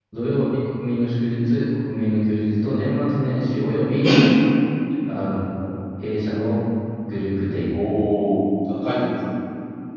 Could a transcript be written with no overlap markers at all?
Yes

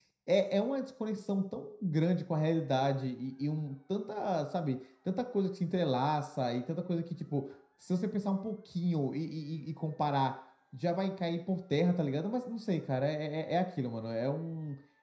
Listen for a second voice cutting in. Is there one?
No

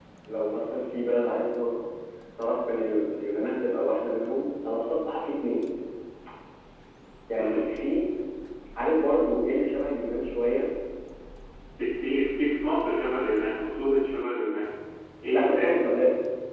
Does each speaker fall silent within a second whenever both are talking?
Yes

